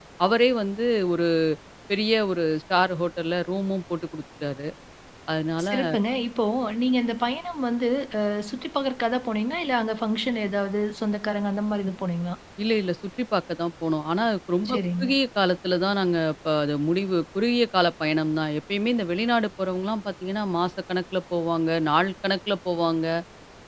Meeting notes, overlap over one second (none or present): none